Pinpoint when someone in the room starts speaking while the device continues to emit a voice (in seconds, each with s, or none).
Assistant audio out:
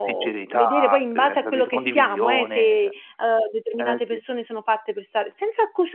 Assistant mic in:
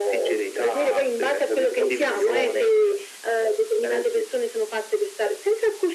1.6 s